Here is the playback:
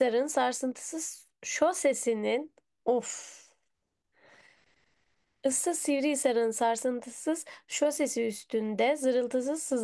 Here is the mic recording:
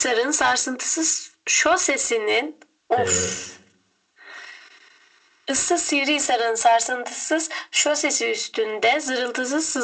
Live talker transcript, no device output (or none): Evet.